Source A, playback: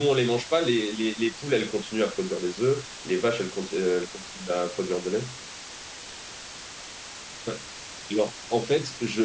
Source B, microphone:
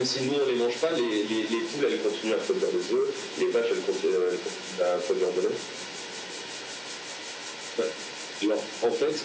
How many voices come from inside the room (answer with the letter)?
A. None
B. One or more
A